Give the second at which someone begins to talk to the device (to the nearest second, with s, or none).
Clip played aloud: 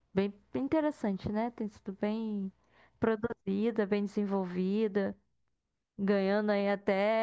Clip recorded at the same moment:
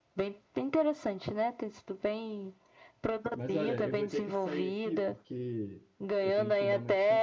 3 s